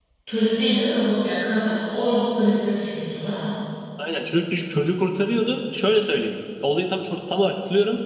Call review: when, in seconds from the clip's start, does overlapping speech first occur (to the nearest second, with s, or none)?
none